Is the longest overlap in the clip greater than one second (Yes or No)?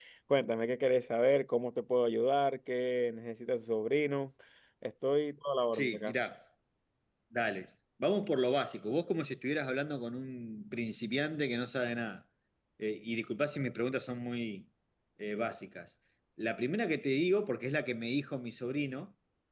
No